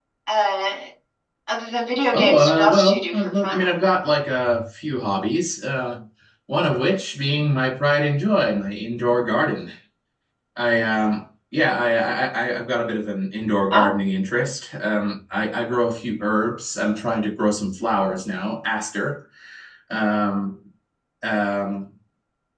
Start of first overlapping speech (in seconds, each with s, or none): 2.1 s